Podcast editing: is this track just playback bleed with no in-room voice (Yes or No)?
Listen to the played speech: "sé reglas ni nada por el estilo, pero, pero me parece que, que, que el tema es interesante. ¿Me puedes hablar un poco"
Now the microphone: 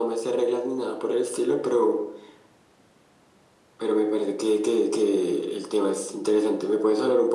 Yes